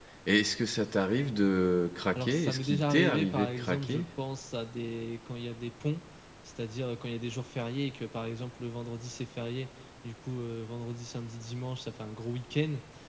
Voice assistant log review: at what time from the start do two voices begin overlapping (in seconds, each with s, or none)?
2.2 s